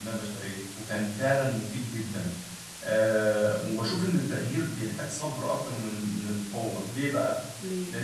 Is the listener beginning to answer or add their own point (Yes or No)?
No